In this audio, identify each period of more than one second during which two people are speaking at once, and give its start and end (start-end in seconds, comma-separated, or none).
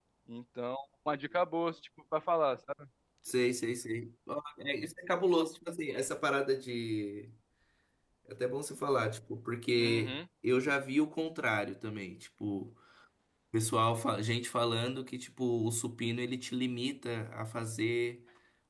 none